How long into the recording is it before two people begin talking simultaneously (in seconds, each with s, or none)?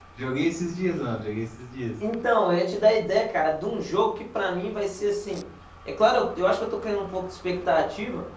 none